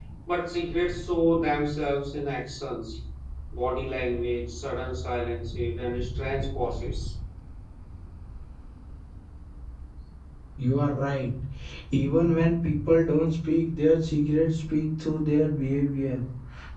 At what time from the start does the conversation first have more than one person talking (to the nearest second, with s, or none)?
none